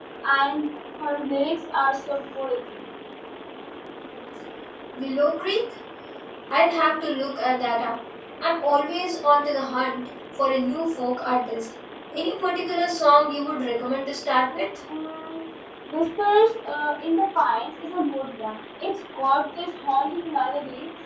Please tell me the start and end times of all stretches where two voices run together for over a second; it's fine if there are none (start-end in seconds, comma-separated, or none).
none